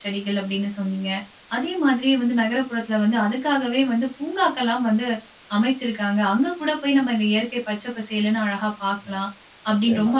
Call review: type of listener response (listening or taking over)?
listening